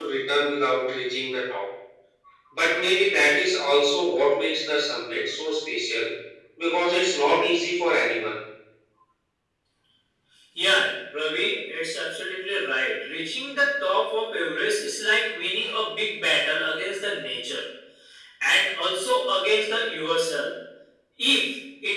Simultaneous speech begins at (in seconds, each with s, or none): none